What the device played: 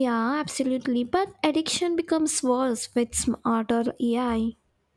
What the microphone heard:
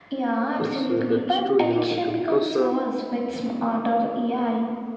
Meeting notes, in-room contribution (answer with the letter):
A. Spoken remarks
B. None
A